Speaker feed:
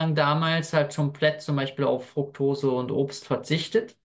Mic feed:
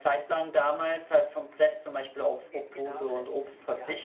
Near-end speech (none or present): present